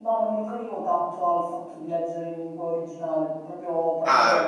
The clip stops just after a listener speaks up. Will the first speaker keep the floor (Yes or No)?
Yes